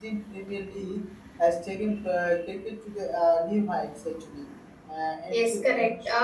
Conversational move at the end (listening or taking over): taking over